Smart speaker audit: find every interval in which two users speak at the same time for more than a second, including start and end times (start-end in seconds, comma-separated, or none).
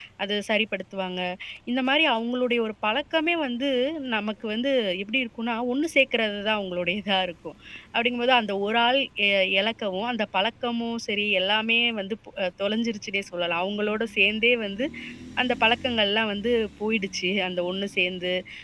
none